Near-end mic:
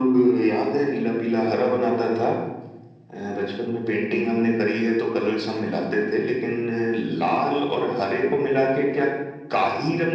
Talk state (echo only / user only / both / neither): echo only